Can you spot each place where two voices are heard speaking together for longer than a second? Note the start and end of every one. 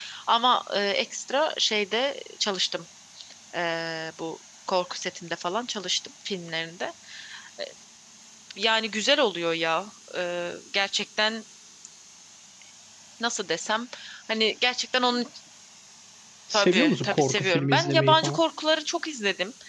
16.5-18.4

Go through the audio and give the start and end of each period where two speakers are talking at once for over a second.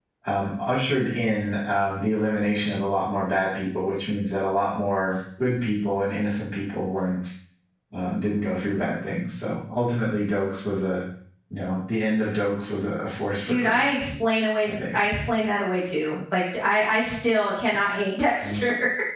none

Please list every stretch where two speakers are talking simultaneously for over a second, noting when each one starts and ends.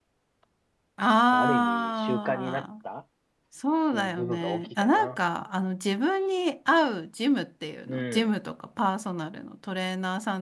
1.3-2.6, 3.9-5.2

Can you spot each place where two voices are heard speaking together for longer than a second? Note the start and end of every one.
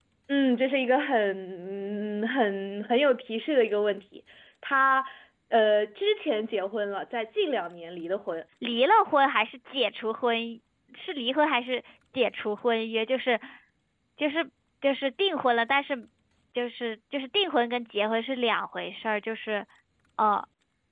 none

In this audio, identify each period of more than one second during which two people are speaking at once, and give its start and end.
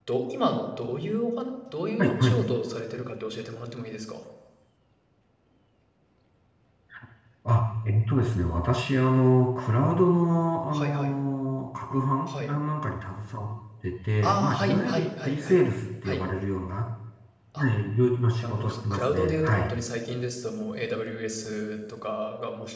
14.2-15.6, 18.4-19.7

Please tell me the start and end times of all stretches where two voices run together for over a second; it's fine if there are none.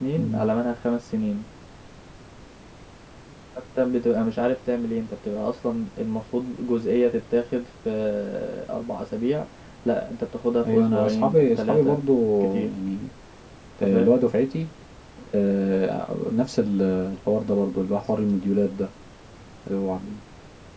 10.6-12.0

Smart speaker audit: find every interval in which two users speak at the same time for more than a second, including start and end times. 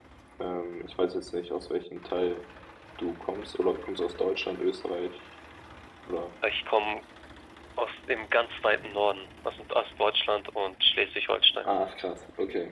none

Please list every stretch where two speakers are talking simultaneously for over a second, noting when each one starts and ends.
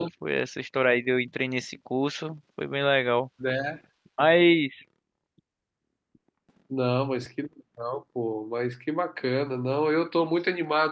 none

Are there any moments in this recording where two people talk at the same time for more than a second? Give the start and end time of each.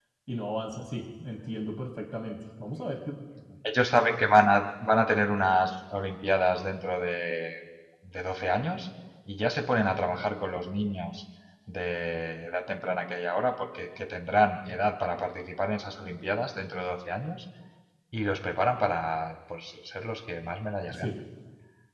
none

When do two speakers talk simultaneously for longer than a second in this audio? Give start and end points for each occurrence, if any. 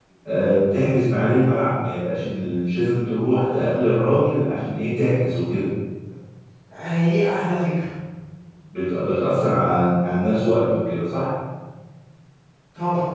none

